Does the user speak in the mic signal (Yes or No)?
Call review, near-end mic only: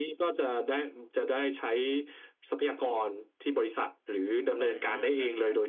Yes